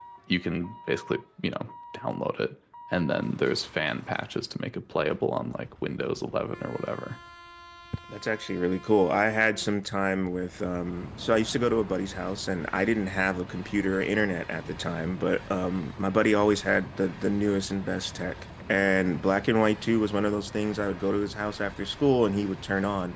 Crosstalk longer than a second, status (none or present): none